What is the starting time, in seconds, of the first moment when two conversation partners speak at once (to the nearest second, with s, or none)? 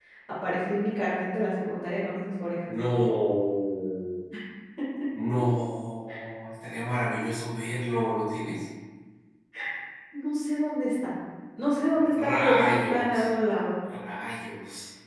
12 s